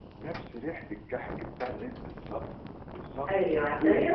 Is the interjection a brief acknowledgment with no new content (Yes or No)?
No